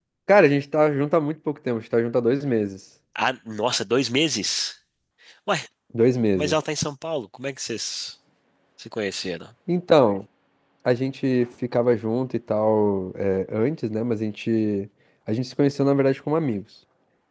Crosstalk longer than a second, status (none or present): none